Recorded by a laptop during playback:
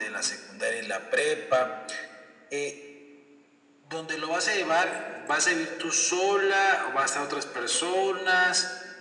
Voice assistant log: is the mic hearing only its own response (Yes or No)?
Yes